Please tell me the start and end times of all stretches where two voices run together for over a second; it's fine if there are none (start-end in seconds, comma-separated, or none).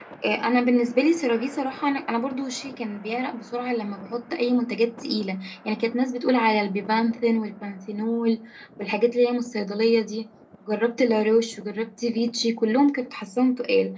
none